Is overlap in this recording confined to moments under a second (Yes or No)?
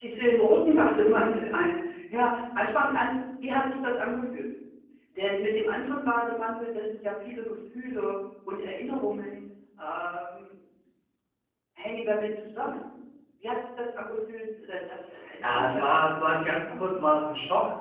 No